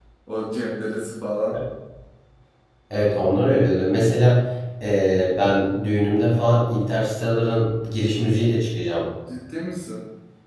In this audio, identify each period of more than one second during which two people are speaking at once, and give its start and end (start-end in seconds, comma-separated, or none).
none